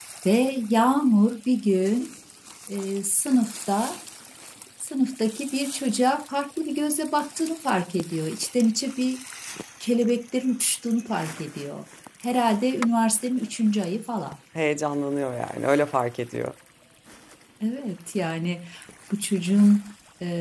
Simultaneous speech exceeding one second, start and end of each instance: none

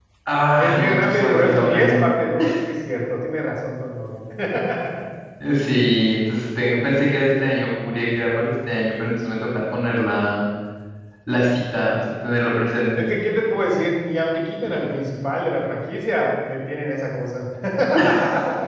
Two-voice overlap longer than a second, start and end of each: 0.6-2.0

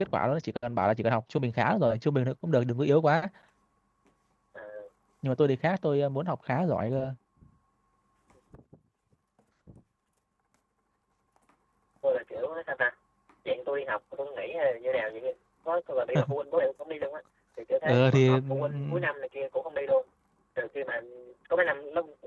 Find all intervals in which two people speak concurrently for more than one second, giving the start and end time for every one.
17.8-19.1

